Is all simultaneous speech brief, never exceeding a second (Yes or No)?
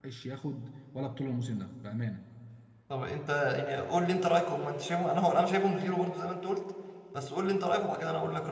Yes